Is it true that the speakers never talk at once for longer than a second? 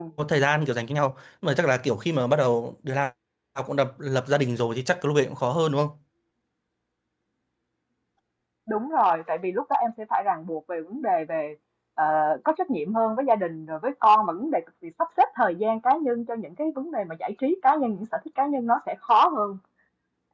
Yes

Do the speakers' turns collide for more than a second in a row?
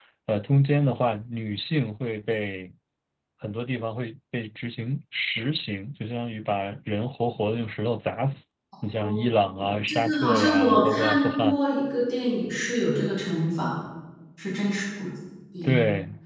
Yes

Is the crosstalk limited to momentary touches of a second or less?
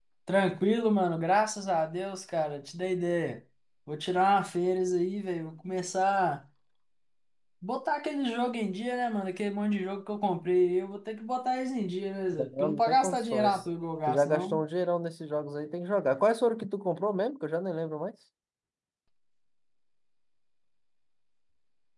No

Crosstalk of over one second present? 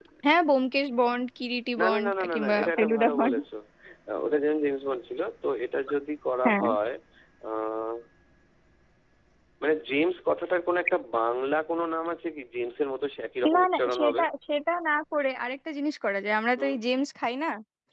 Yes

